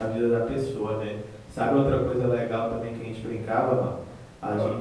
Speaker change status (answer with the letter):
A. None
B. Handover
A